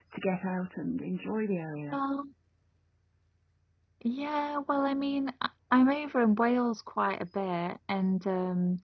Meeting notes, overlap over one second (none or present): none